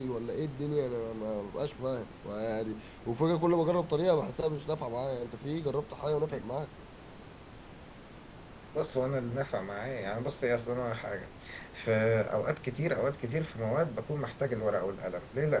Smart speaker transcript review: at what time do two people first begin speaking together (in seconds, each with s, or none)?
none